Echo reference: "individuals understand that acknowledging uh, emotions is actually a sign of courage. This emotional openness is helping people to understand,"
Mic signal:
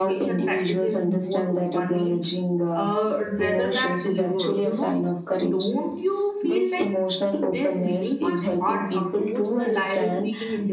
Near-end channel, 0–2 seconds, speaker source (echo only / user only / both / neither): both